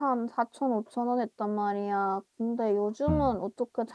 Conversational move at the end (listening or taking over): listening